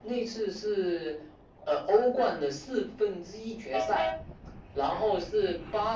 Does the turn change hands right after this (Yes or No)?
No